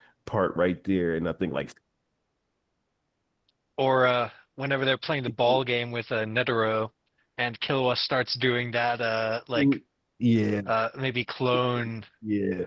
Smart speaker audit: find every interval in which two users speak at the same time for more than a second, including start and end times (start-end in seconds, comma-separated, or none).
none